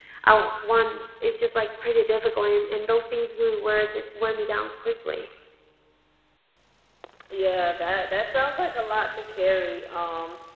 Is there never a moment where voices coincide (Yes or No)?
Yes